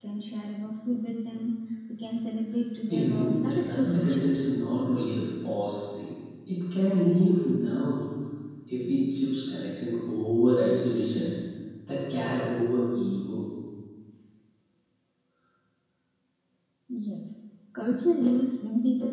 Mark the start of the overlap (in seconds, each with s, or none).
2.9 s